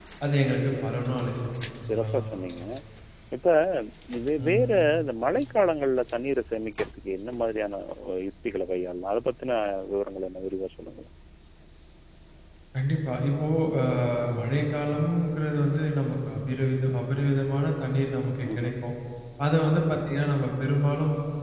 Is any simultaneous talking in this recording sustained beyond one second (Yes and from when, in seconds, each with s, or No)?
No